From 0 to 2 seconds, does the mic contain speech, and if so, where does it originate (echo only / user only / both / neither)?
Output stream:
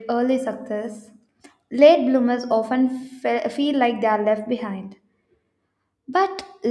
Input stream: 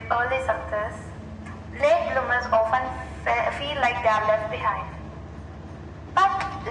echo only